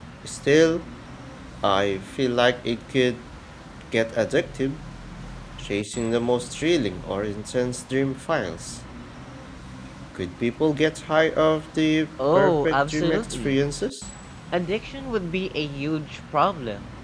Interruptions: present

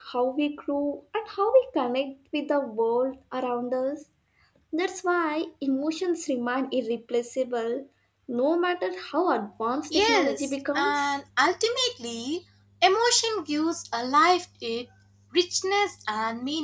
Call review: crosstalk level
present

